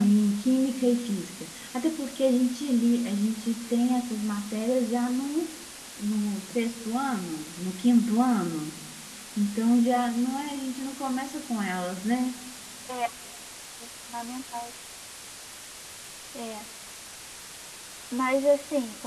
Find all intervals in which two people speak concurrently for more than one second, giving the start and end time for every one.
none

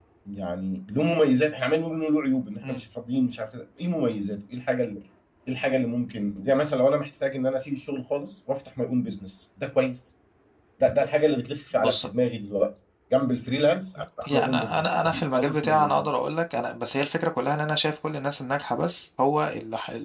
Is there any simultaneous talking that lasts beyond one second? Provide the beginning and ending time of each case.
14.3-16.1

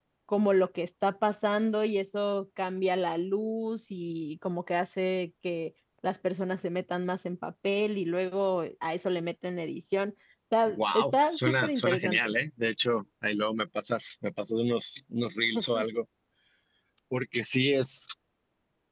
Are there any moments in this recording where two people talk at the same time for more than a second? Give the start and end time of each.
10.7-12.3

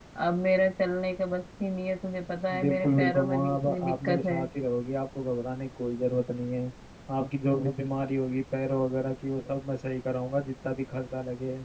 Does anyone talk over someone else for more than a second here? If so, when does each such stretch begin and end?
2.6-4.4

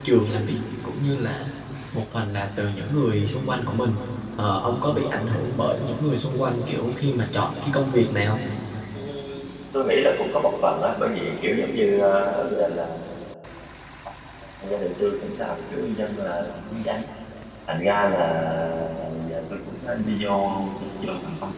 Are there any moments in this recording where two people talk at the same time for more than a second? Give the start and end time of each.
none

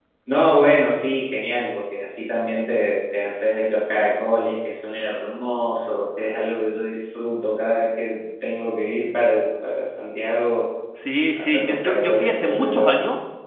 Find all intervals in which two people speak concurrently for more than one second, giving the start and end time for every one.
11.4-13.0

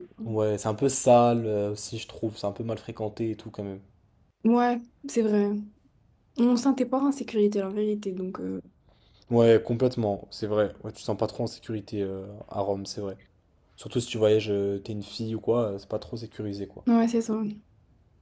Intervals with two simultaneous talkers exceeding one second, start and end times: none

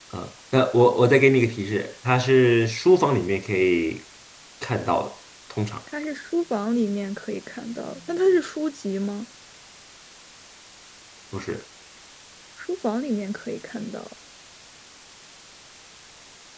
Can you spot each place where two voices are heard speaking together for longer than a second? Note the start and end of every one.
none

